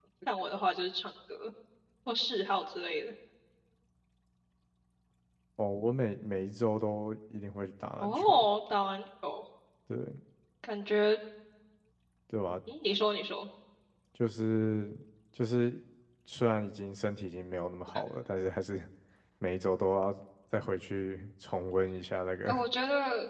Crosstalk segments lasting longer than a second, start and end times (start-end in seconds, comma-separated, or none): none